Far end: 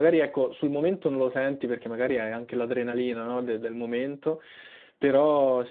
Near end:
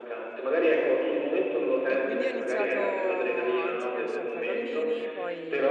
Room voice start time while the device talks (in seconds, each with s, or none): 1.8 s